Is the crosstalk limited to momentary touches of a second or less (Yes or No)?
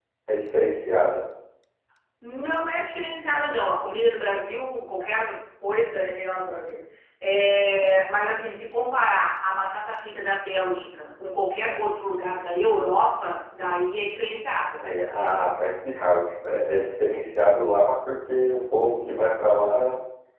Yes